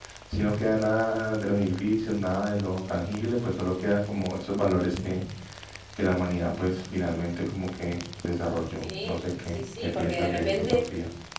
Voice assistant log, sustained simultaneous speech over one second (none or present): present